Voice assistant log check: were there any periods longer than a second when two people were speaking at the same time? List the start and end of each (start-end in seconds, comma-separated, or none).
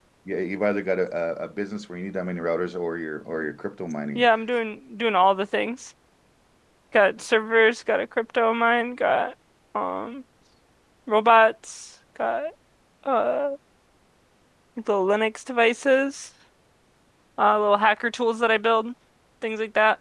none